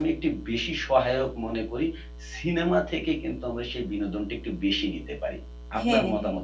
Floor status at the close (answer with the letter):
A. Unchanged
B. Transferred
B